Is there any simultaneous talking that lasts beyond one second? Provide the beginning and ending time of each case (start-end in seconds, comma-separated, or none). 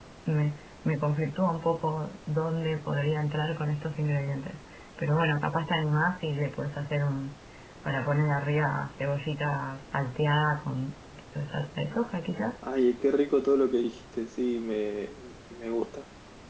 none